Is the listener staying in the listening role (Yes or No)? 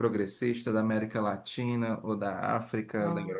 No